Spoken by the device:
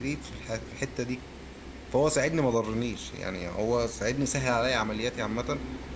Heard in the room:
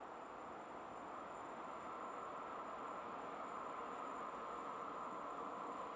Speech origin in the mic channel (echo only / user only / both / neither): neither